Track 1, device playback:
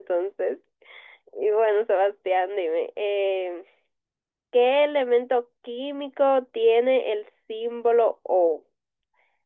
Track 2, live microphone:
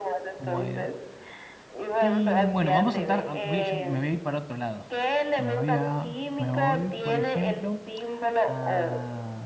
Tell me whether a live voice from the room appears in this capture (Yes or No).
Yes